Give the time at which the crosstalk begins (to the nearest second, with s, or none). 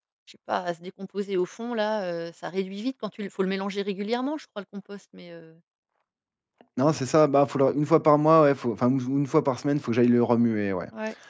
none